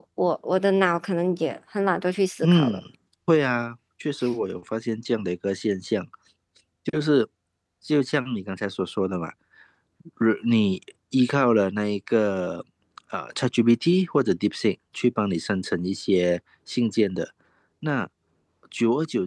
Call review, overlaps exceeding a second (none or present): none